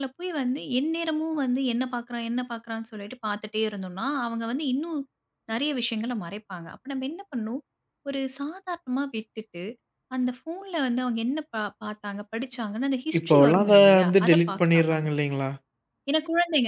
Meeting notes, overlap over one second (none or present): present